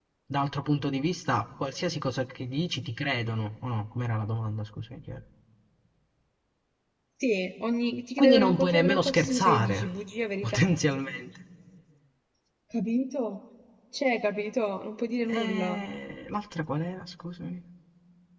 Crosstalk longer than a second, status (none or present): present